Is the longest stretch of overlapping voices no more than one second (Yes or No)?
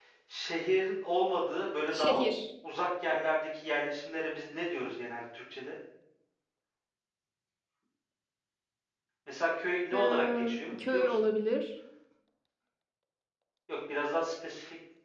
No